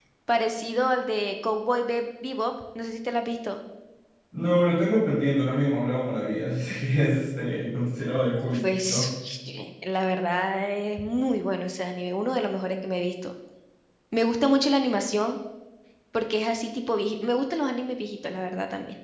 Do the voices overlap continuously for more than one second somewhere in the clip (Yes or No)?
No